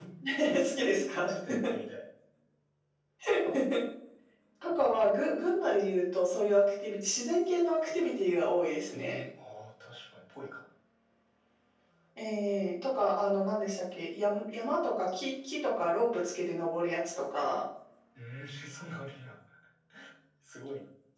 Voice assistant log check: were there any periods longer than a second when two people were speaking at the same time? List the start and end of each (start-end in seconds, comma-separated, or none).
none